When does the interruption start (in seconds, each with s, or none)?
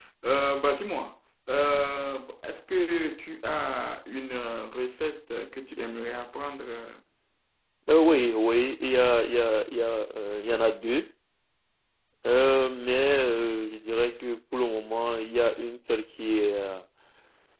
none